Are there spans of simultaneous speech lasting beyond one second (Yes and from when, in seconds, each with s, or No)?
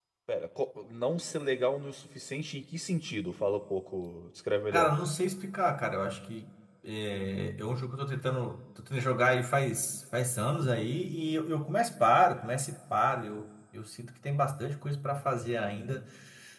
No